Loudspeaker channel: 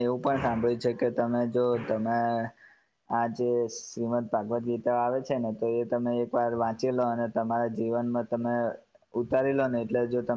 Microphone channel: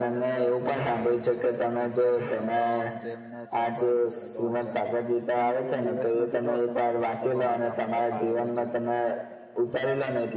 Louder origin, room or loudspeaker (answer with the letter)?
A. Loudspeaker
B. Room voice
A